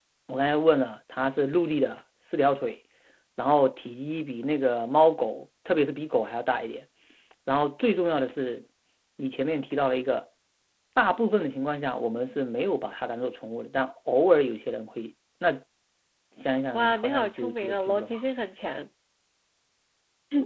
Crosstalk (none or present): present